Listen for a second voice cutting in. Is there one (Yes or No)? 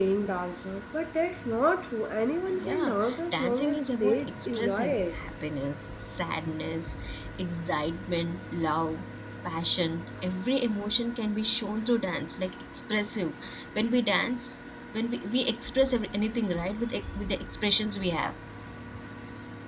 Yes